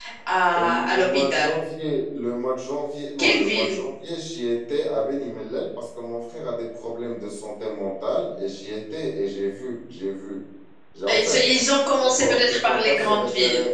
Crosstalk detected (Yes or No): Yes